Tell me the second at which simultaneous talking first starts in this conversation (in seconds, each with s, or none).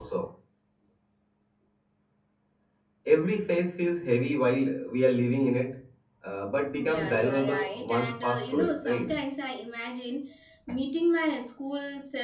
6.7 s